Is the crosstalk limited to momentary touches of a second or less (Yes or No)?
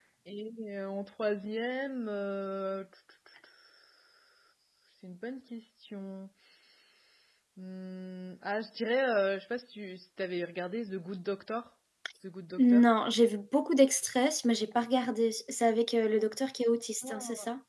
Yes